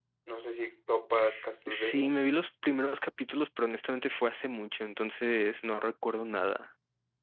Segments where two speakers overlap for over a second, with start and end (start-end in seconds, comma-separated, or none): none